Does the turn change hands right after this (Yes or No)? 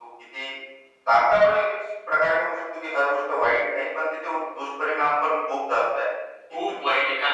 Yes